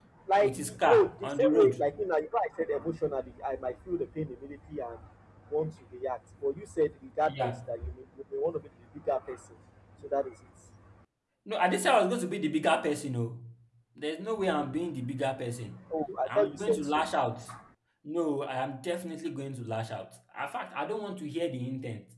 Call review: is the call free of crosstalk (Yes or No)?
No